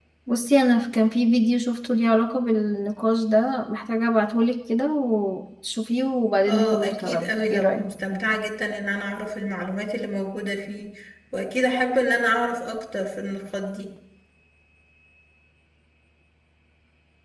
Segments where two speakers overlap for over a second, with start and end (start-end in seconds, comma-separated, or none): 6.5-7.8